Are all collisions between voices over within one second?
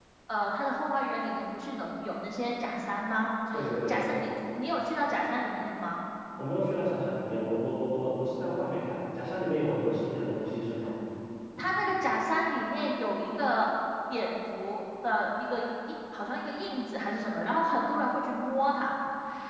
Yes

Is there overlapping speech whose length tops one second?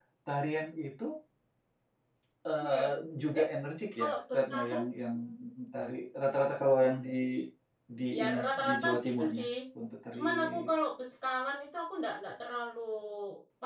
Yes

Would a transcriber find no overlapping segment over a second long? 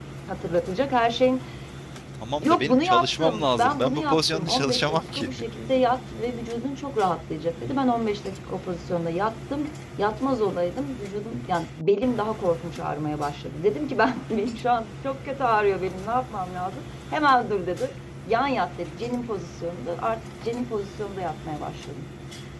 No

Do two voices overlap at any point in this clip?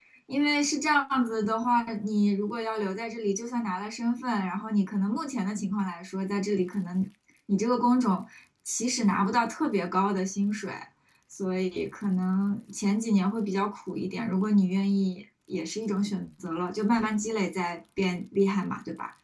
No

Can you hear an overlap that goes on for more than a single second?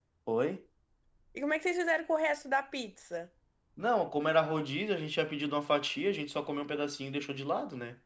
No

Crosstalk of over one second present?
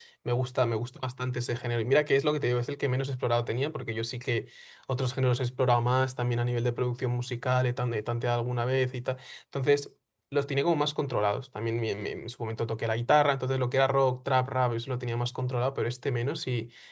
No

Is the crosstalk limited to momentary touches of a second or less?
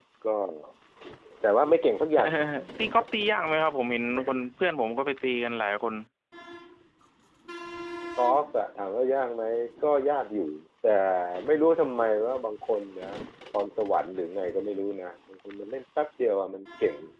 Yes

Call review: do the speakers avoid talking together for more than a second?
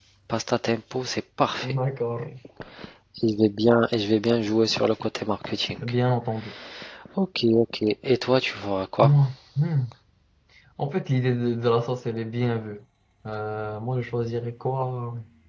Yes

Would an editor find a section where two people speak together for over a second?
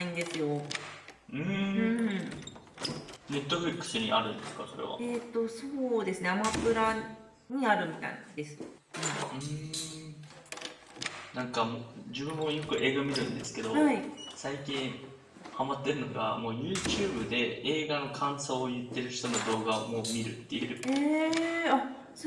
No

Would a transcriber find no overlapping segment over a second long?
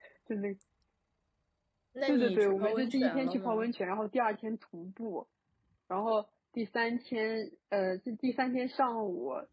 No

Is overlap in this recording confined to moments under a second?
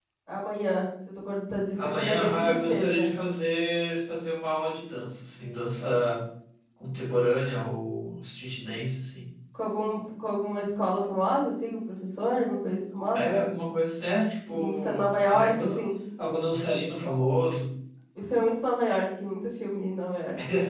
No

